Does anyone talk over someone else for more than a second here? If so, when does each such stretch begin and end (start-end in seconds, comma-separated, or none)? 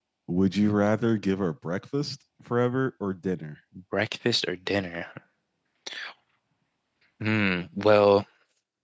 none